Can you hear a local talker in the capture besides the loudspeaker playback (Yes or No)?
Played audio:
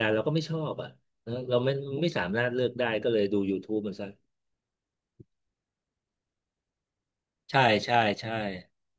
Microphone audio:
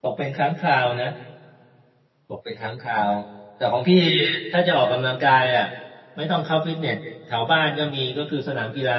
Yes